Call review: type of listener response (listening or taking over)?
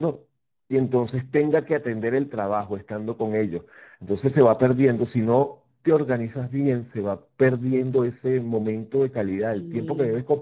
listening